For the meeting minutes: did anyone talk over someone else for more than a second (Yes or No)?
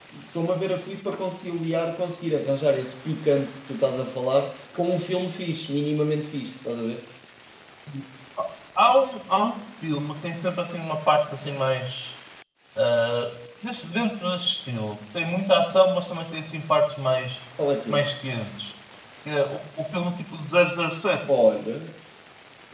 No